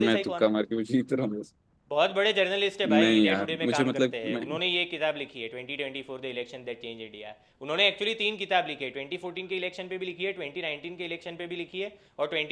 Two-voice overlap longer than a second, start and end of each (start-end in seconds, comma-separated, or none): 2.9-4.4